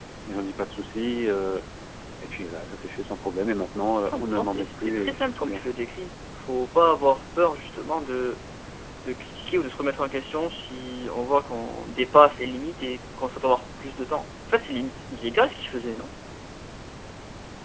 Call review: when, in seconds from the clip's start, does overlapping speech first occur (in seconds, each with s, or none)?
4.1 s